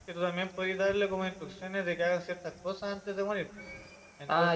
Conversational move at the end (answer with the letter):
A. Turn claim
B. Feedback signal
A